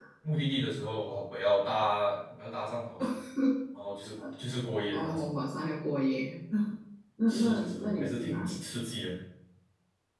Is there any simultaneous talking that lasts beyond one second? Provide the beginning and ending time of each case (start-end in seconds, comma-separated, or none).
7.3-8.6